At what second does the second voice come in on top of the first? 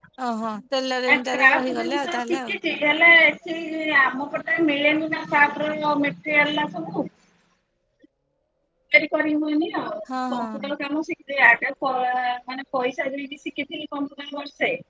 1.1 s

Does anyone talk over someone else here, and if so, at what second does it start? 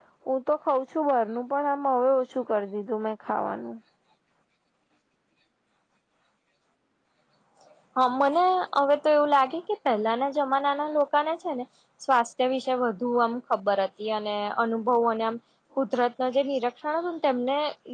none

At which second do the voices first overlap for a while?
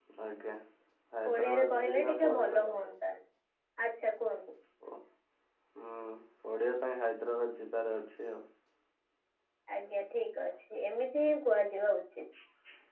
1.3 s

